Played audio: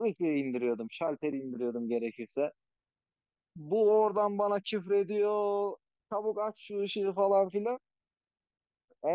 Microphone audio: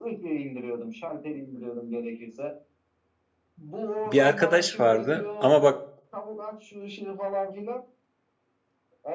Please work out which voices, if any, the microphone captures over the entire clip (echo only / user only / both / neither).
both